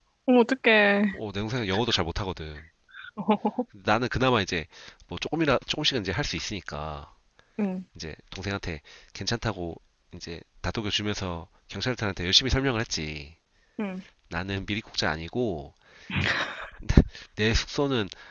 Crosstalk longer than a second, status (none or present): none